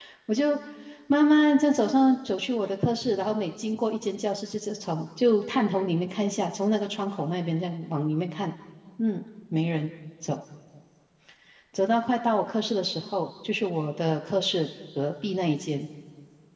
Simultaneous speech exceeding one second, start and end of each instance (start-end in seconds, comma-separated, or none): none